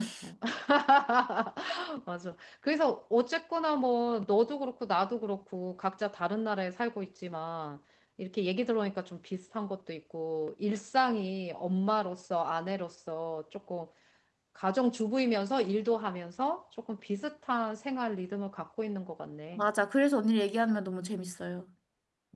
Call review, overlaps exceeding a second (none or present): none